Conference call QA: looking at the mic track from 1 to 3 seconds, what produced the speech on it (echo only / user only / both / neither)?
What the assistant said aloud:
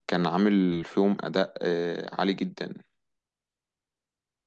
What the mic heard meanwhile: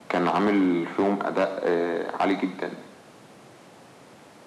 echo only